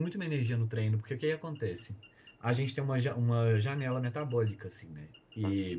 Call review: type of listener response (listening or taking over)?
listening